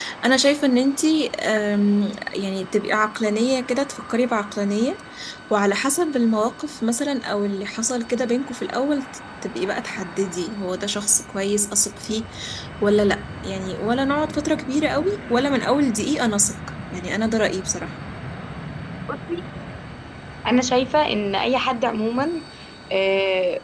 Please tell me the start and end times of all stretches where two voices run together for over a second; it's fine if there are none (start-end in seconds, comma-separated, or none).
none